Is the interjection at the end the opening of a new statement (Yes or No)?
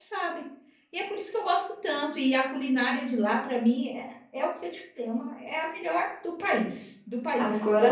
Yes